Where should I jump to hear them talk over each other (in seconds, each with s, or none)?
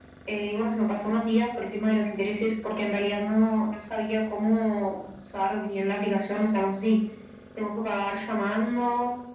none